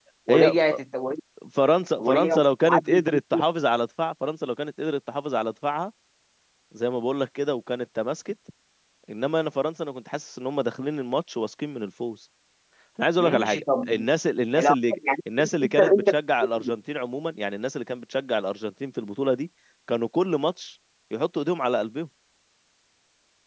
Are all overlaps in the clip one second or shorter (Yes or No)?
No